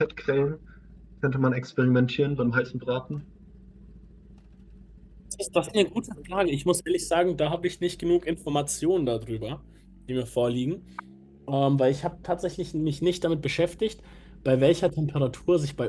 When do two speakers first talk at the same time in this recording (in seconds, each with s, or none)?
none